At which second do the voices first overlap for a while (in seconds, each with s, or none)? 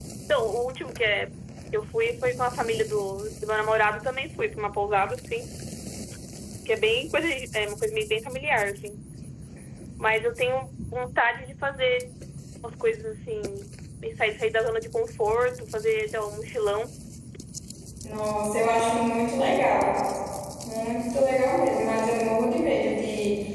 none